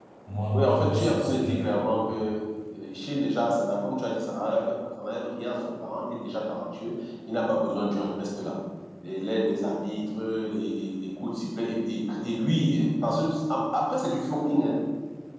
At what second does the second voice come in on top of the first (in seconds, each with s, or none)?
0.5 s